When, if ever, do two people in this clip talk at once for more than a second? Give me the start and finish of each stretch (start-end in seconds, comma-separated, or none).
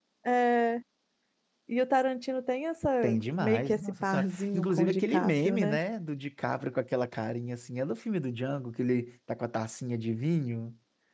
3.4-5.8